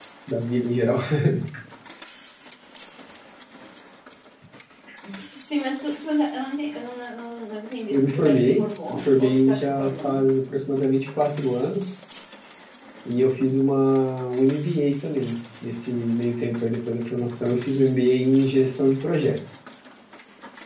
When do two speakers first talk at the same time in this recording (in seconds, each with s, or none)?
7.9 s